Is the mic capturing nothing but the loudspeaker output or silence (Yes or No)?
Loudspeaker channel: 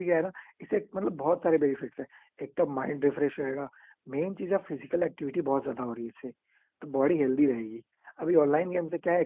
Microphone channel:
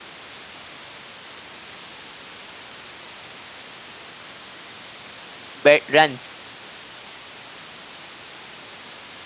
No